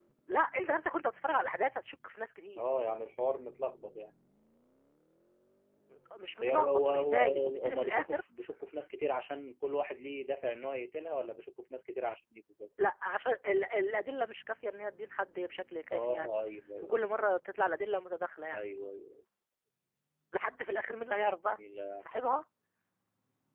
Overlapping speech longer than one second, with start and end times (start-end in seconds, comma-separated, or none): 6.4-8.2